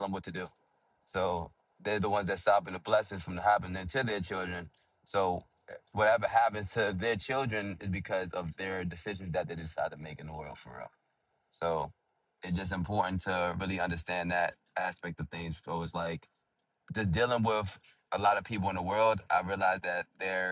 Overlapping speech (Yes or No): No